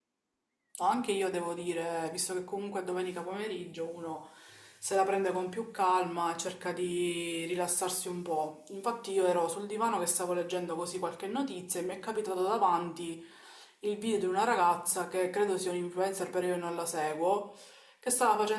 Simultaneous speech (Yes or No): No